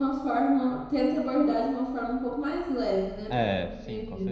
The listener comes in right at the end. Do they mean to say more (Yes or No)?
Yes